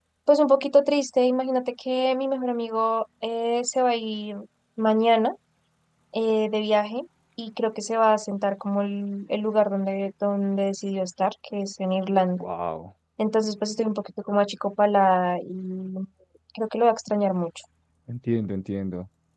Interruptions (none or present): none